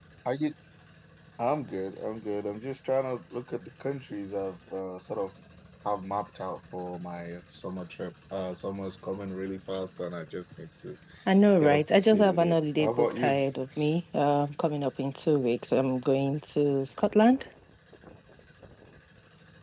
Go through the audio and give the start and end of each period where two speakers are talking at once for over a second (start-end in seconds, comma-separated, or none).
11.6-13.3